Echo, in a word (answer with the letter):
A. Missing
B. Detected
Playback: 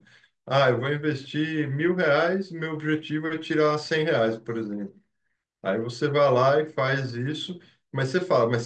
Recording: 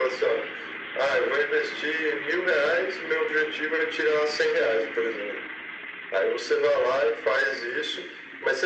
B